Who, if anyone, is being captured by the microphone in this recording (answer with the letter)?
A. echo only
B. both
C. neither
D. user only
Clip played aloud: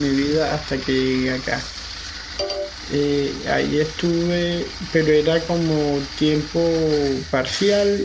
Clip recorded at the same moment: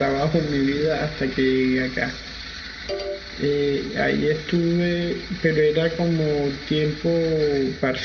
A